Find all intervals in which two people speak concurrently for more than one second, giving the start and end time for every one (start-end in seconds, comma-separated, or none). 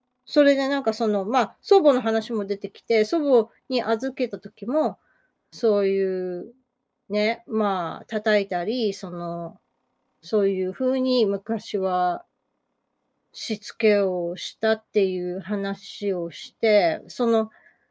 none